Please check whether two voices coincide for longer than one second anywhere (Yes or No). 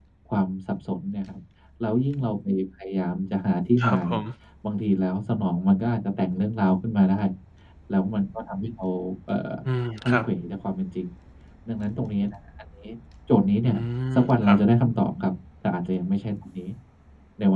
No